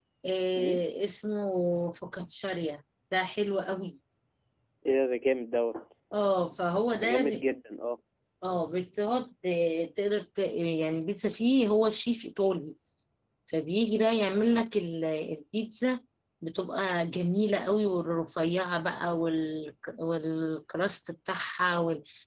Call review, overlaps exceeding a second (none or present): none